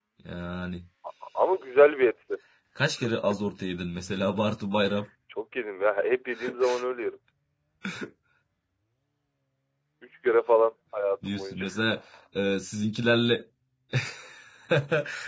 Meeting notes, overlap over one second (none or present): none